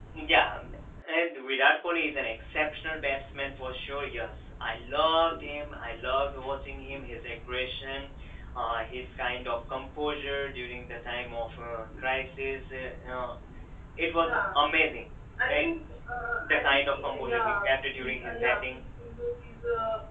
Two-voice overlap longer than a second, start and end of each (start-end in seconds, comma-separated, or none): 16.4-18.8